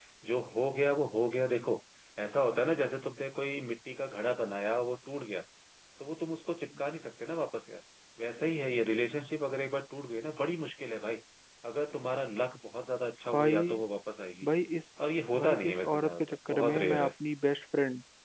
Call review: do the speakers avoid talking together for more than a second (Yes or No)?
No